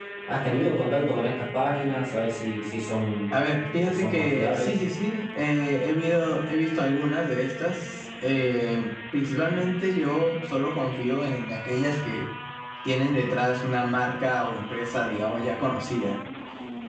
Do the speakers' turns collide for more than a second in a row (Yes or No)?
Yes